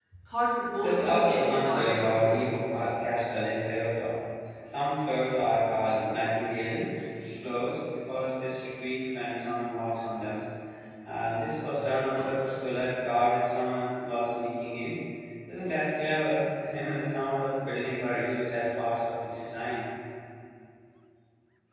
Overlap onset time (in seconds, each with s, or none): 0.8 s